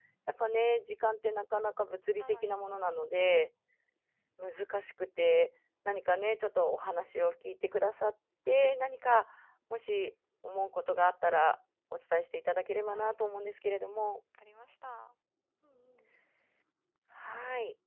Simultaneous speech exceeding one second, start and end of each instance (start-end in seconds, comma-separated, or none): none